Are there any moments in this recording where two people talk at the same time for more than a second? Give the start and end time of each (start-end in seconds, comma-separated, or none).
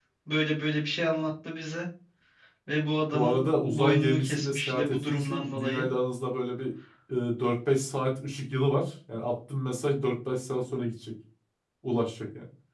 3.1-5.9